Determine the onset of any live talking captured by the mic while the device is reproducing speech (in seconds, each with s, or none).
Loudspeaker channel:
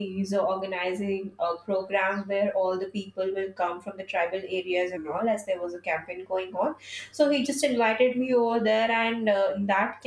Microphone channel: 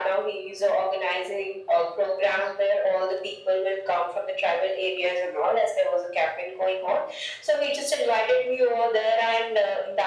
none